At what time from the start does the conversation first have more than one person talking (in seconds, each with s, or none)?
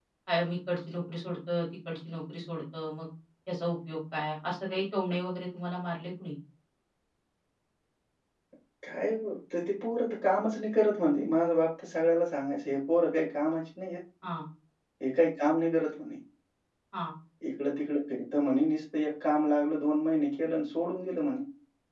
none